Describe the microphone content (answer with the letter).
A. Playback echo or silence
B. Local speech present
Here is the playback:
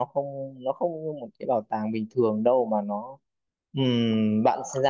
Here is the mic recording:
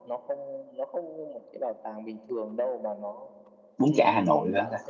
B